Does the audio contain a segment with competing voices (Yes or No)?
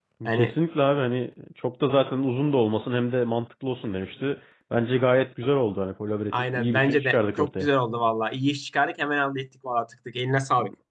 Yes